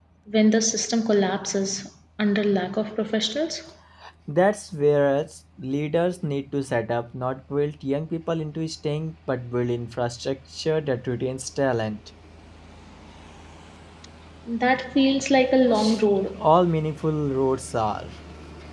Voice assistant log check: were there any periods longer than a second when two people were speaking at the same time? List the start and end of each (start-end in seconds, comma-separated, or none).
none